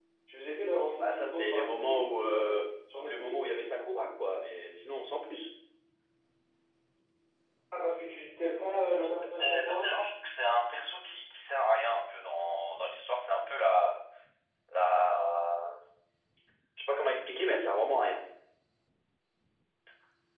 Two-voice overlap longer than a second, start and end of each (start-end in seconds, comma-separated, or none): 1.0-2.6, 8.6-9.9